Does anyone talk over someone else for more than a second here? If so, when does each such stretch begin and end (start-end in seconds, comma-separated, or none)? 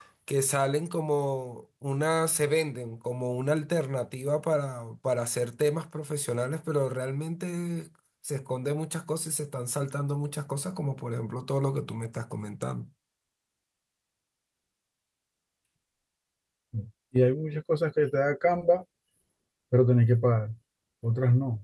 none